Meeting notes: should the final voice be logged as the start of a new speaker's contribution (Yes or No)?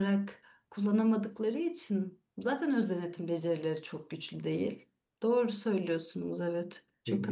Yes